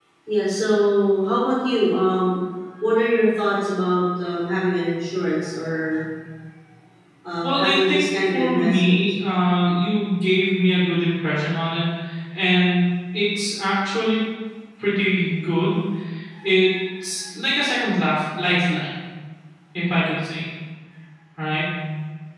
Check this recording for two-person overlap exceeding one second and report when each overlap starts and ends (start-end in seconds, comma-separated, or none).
7.4-9.0